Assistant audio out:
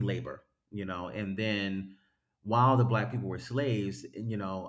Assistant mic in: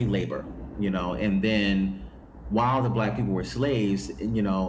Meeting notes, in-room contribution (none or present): none